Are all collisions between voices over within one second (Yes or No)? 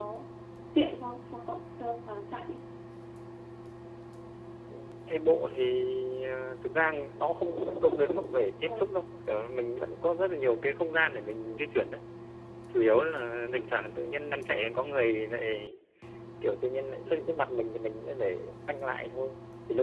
Yes